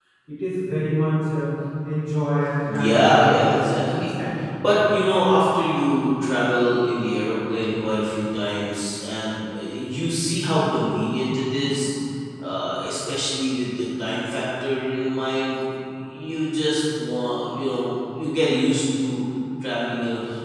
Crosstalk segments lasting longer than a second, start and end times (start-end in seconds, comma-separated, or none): 2.6-4.1